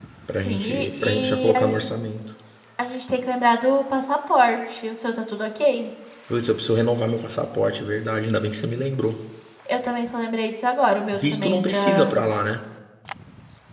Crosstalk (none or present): present